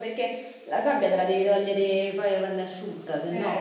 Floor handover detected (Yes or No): Yes